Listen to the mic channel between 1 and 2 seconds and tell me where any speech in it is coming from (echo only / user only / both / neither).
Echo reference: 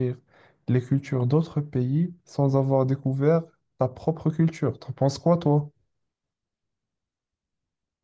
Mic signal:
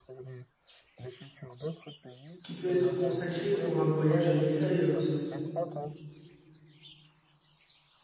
echo only